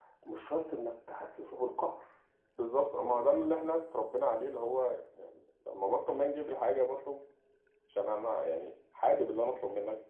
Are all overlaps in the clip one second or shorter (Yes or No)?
Yes